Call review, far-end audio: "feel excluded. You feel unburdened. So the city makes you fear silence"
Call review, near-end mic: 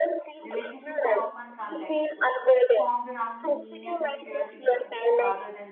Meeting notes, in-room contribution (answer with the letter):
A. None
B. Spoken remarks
B